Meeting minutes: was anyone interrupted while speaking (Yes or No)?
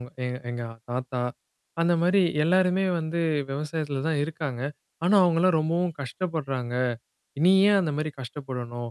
No